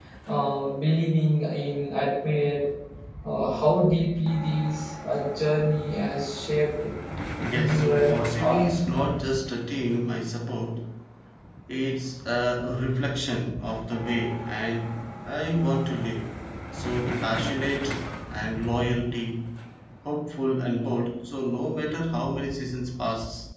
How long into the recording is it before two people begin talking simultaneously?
7 s

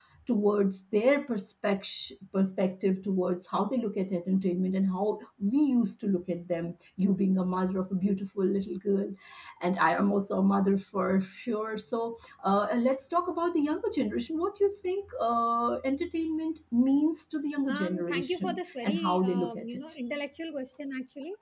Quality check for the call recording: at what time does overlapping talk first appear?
18 s

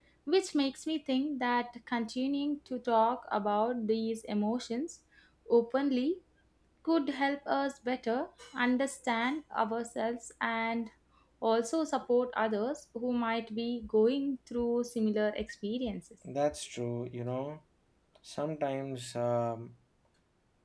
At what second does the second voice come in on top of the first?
none

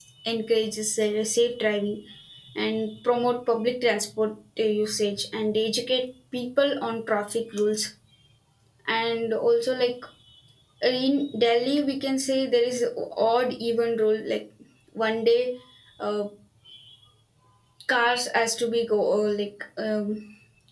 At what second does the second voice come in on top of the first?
none

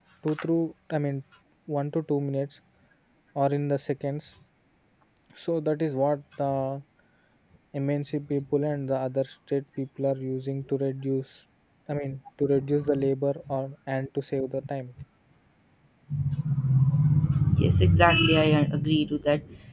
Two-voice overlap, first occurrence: none

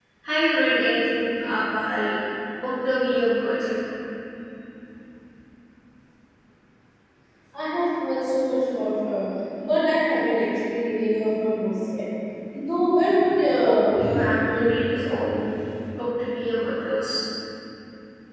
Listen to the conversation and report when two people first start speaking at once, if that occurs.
14 s

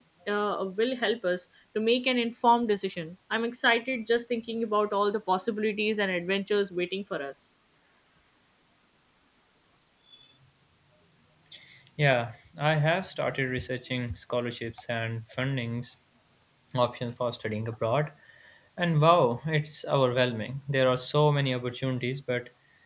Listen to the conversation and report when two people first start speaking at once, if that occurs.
none

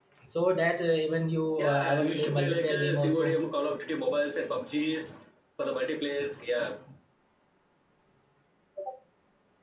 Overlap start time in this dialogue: 2 s

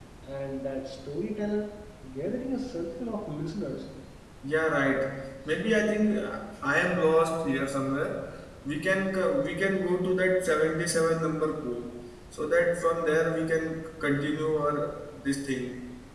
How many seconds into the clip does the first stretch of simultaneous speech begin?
none

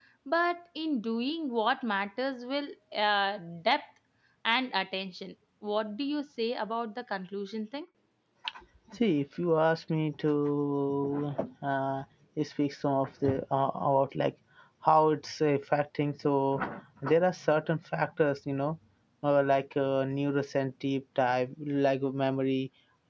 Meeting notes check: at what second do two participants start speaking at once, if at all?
none

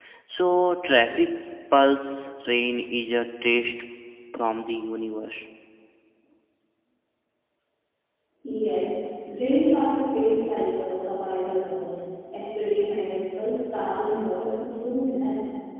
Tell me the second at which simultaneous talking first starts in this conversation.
none

